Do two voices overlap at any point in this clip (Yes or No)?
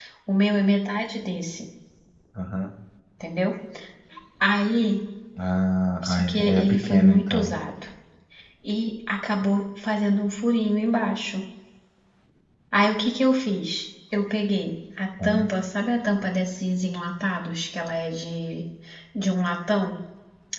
Yes